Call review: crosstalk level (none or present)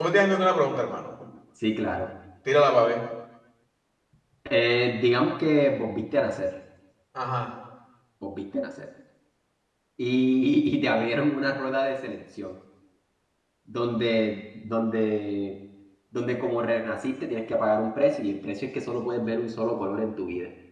none